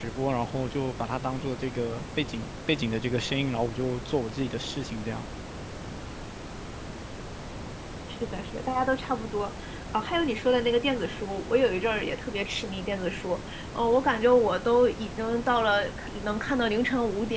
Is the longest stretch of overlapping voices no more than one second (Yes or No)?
Yes